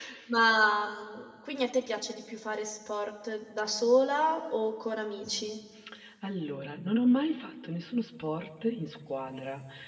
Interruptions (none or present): none